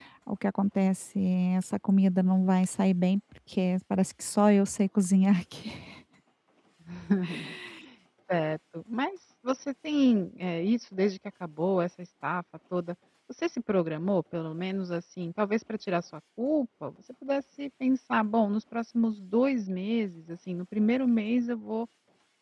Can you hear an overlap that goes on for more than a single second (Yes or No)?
No